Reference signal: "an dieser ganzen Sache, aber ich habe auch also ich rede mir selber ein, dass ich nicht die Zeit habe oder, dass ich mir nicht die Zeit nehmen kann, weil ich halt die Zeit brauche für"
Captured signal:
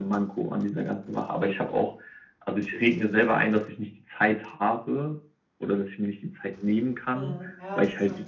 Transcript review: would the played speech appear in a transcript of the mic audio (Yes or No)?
Yes